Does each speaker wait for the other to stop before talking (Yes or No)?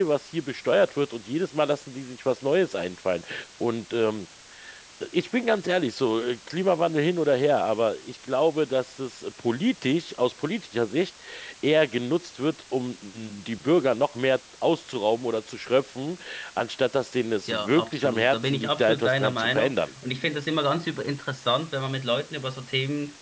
No